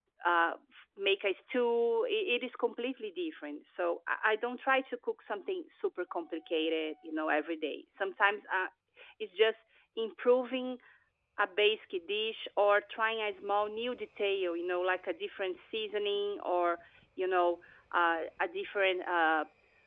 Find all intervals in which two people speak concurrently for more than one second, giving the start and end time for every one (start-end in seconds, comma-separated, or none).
none